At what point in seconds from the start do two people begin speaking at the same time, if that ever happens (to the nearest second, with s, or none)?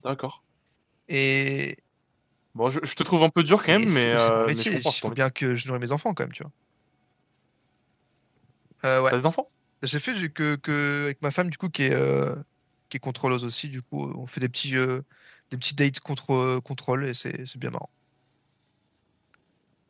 4 s